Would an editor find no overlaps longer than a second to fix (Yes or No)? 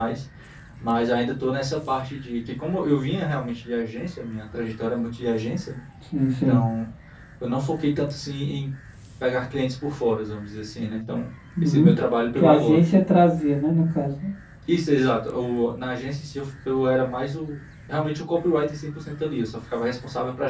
Yes